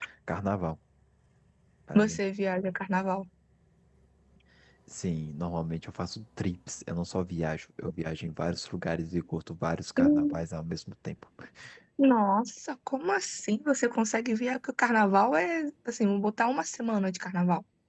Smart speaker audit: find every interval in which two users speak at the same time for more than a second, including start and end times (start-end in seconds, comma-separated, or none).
none